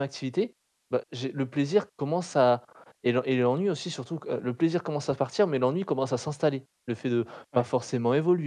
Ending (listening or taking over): listening